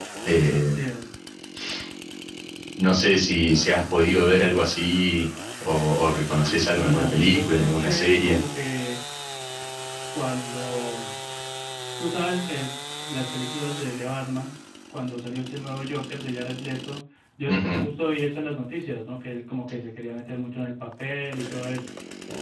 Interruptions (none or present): present